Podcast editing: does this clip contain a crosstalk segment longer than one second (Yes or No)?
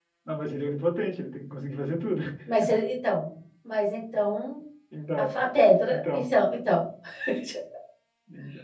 No